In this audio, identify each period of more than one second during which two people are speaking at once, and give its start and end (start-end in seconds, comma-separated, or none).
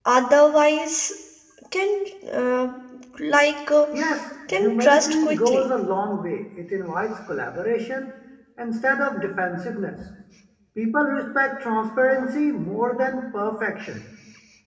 4.5-5.7